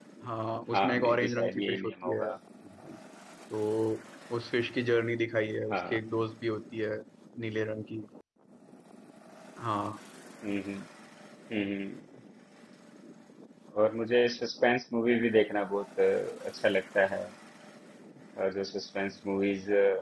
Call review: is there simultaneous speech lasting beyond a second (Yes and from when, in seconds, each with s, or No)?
Yes, from 0.7 s